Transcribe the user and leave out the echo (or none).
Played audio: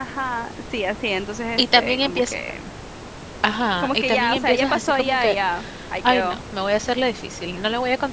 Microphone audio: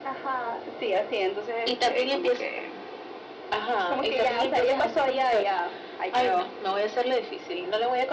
none